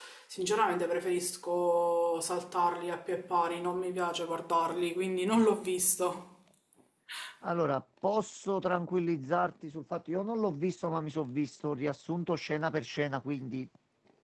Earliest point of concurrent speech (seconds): none

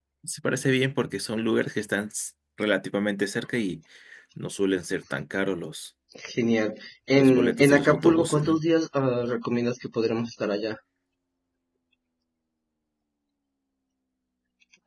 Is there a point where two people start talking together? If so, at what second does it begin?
7.2 s

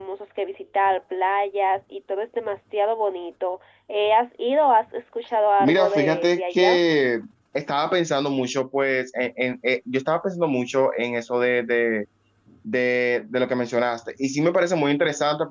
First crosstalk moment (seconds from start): 5.6 s

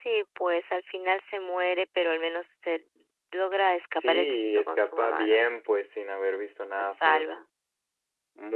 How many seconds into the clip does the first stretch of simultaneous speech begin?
4.0 s

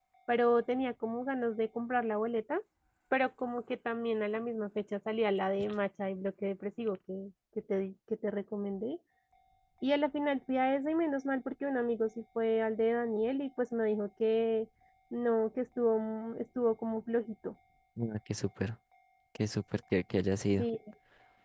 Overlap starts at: none

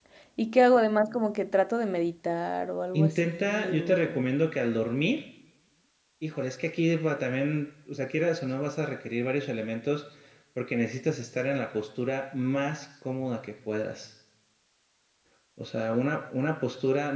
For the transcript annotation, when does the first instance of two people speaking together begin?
2.9 s

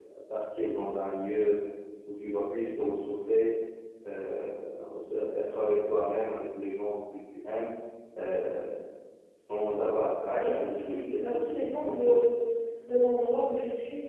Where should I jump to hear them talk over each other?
10.3 s

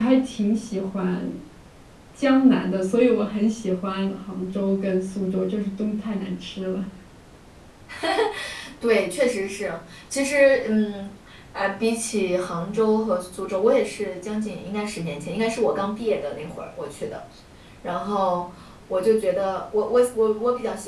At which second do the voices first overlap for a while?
none

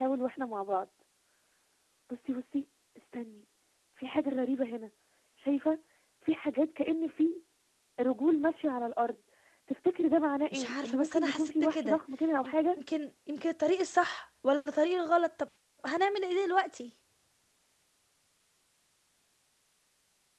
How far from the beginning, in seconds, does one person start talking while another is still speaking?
10.5 s

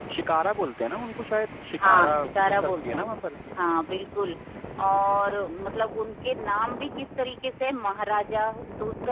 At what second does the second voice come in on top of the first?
1.8 s

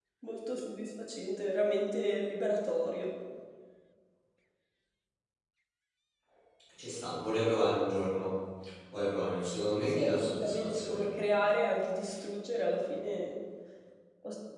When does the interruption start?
9.9 s

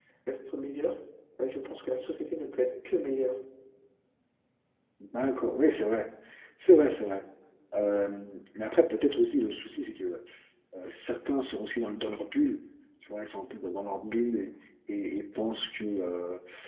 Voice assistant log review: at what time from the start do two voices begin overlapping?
none

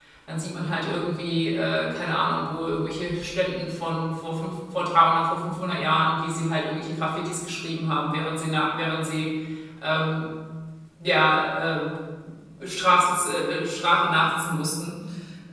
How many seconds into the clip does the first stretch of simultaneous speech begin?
none

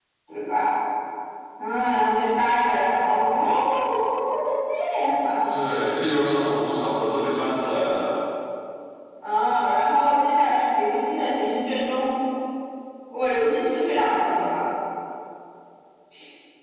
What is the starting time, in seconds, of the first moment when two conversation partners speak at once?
none

